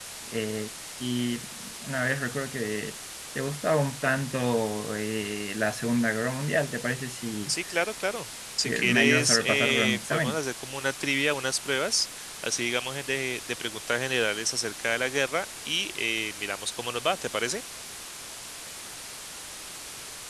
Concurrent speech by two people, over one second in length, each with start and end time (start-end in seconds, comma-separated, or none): 8.6-10.4